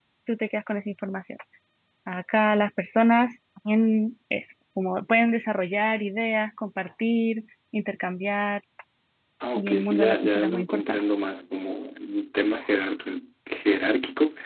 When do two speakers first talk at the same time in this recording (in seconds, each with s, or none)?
9.6 s